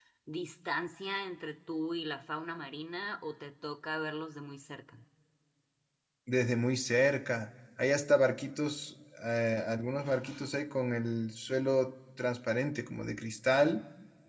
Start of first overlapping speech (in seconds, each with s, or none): none